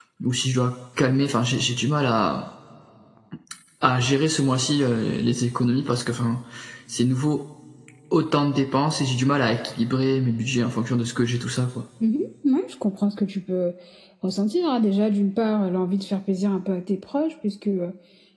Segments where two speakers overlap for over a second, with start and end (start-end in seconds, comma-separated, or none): none